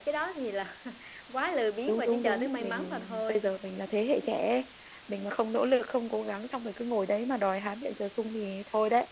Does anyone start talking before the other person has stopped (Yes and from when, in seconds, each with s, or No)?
Yes, from 1.9 s